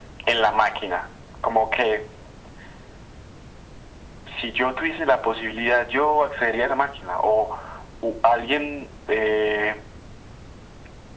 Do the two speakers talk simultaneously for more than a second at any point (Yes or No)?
No